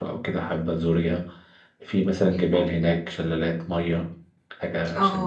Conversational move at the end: taking over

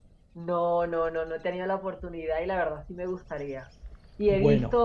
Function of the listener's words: listening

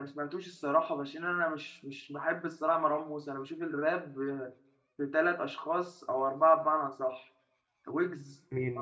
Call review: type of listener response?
listening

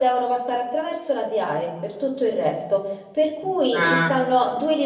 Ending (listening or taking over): listening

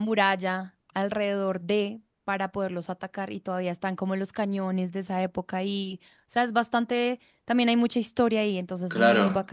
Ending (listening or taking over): taking over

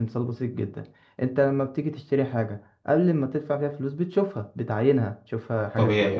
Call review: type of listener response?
listening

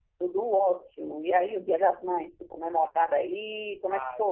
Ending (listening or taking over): taking over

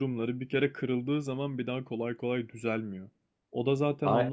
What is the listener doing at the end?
listening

